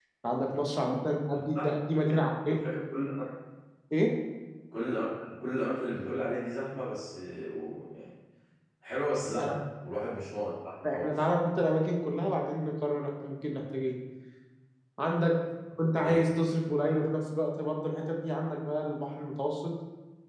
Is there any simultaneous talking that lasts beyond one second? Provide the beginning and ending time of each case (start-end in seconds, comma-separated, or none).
none